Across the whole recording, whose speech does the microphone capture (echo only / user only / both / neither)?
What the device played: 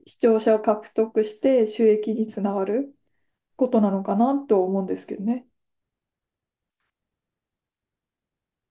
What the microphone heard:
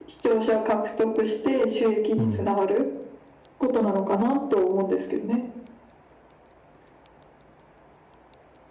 both